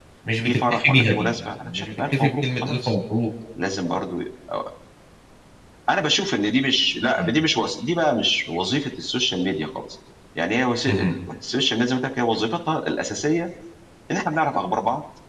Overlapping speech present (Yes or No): Yes